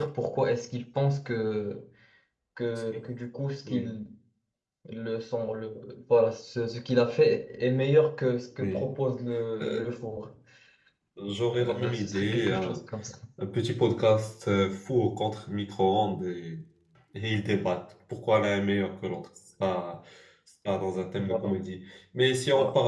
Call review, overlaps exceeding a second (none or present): present